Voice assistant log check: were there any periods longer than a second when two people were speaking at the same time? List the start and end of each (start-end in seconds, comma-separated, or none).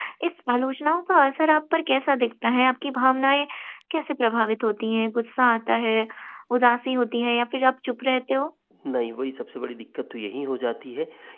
none